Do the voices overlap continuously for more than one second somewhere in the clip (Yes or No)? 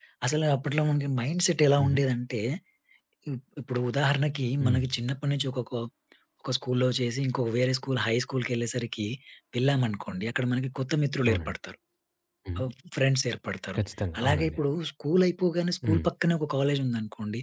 No